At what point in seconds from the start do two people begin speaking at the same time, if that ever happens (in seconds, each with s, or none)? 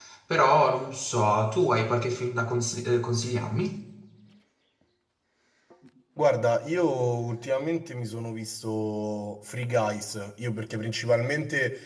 none